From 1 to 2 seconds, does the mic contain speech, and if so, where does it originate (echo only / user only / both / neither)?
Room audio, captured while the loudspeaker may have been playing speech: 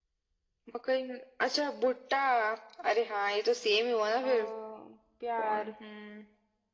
echo only